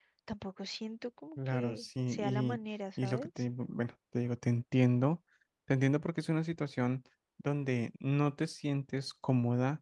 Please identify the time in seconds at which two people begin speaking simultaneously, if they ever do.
1.4 s

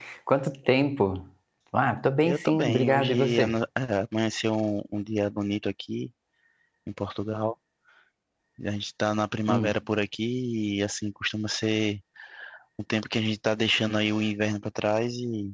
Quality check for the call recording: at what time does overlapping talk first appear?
2.2 s

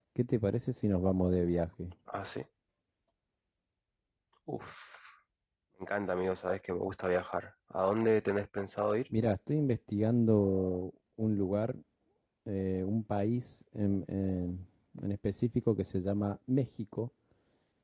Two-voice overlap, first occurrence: none

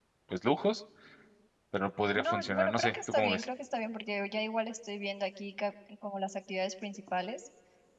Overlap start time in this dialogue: 2.2 s

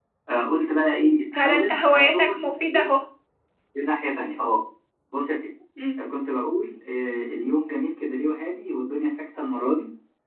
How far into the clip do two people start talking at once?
1.3 s

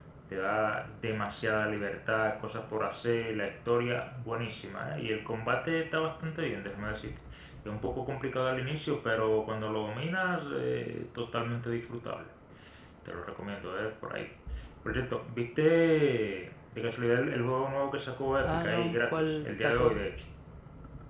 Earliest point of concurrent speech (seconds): 18.4 s

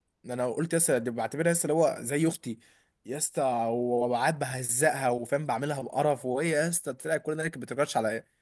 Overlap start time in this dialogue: none

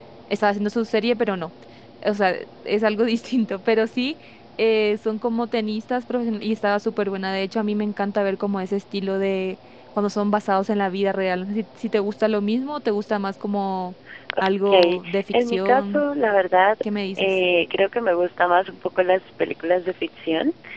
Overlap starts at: 14.7 s

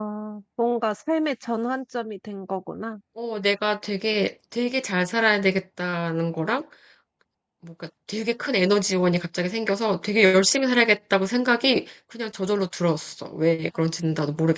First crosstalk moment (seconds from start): none

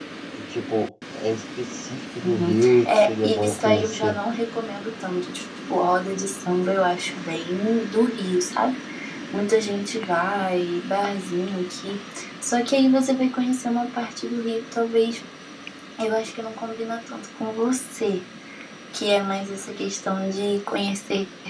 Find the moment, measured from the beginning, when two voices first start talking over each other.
2.2 s

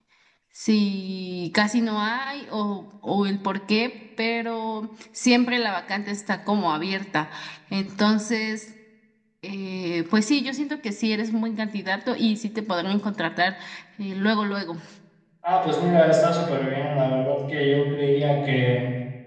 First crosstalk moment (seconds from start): none

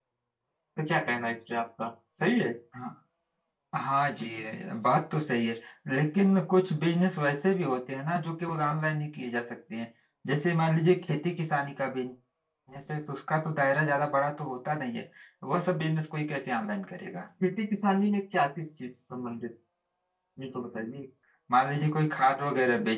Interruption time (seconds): none

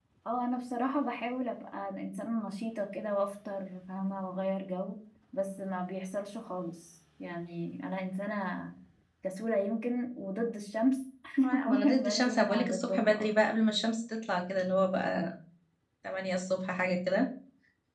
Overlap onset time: 11.6 s

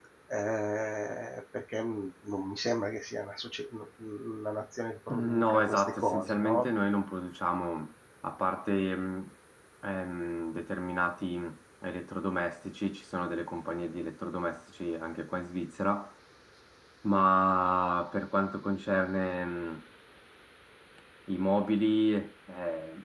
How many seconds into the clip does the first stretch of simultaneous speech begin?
5.1 s

